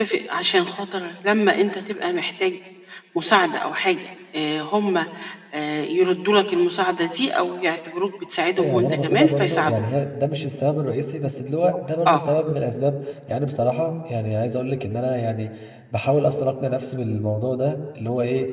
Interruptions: present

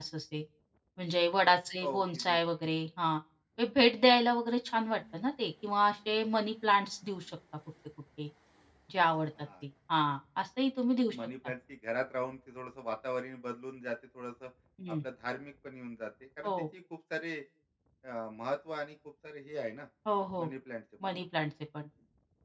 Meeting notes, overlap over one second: none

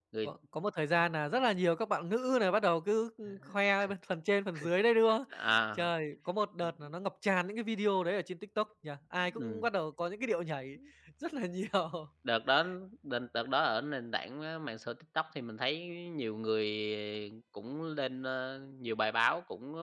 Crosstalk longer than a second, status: none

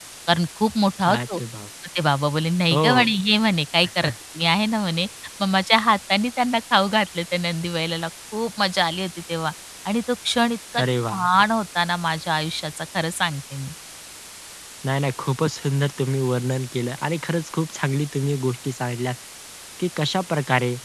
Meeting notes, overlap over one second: none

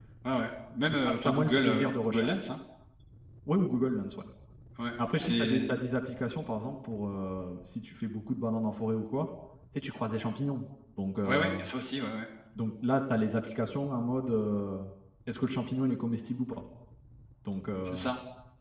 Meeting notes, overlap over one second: present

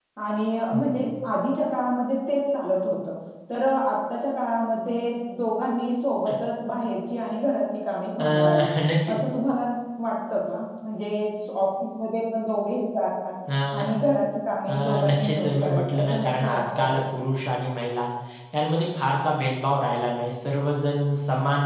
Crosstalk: present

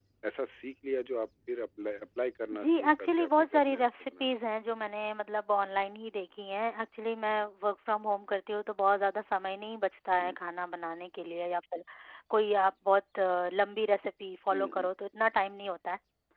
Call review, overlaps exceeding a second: present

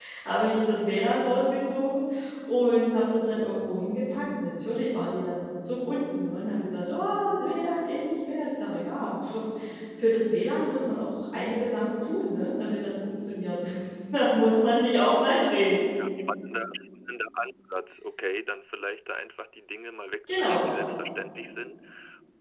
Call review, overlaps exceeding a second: none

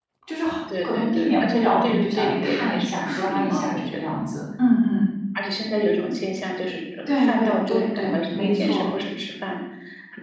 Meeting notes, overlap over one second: present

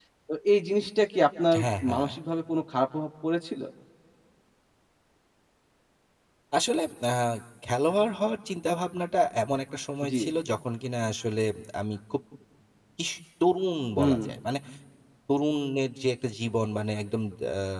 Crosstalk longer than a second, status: none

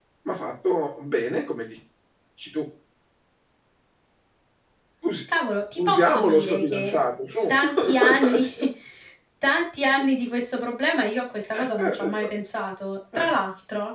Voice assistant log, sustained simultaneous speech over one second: present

